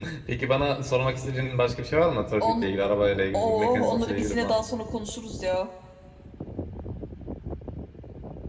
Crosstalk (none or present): present